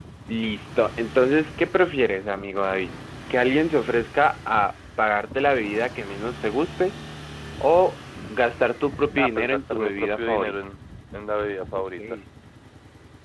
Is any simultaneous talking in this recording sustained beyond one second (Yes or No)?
Yes